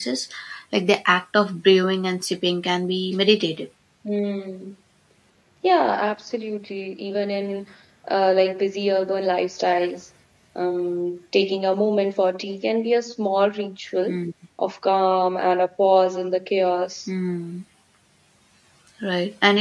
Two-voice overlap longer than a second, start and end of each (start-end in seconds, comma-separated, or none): none